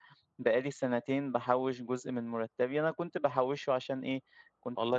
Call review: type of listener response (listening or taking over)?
listening